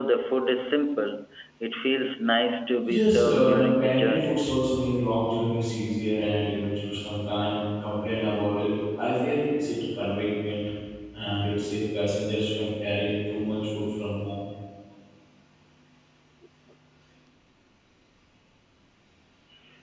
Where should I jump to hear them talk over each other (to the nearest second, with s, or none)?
3 s